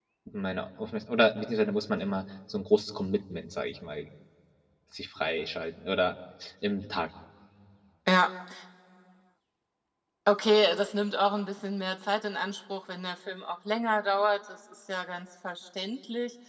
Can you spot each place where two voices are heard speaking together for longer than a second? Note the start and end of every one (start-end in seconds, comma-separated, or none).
none